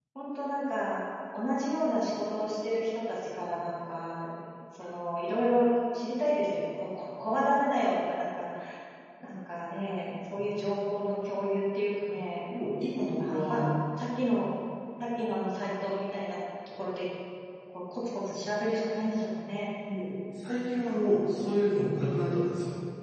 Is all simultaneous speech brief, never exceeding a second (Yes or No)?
Yes